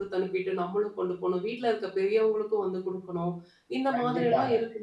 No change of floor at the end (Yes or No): No